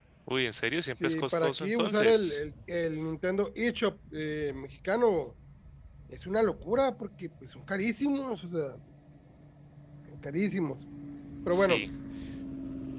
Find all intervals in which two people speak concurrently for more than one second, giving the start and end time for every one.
1.0-2.4

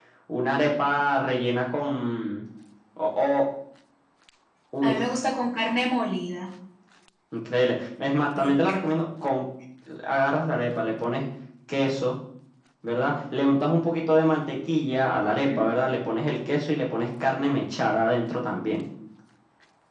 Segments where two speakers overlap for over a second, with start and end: none

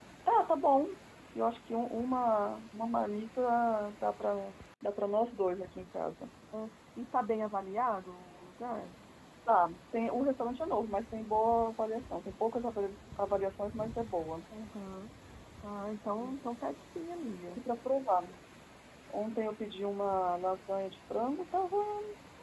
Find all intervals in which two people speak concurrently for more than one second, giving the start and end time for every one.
none

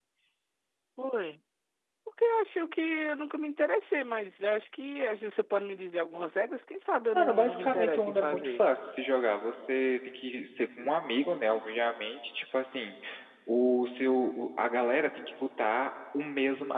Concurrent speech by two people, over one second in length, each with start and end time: 7.1-8.6

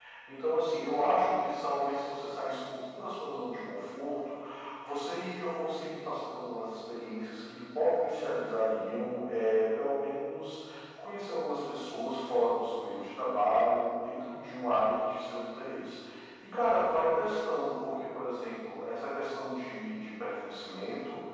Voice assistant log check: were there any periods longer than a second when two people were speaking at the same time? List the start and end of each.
none

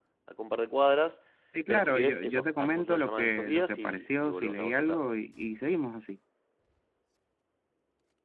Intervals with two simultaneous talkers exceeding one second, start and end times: 1.7-5.0

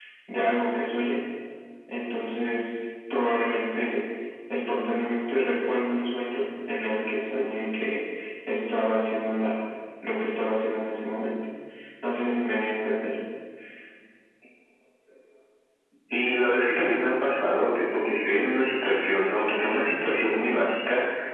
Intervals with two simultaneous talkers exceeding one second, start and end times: none

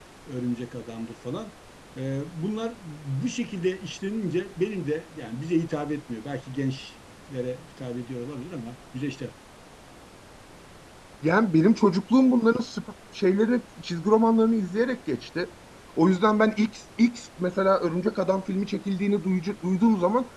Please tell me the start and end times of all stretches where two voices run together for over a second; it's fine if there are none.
none

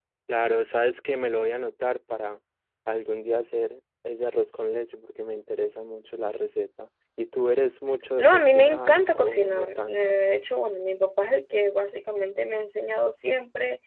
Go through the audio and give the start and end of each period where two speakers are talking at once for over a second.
8.2-10.2

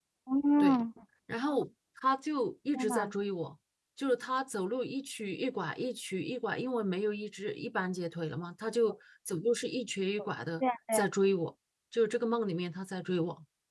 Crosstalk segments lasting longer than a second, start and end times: none

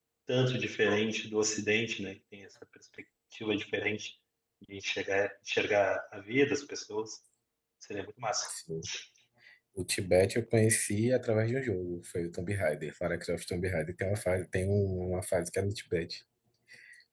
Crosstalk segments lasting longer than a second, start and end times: none

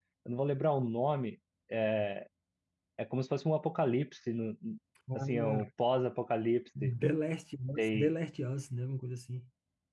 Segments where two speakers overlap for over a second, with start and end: none

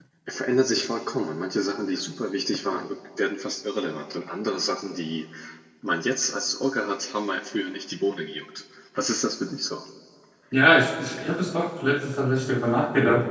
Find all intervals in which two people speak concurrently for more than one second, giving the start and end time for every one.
none

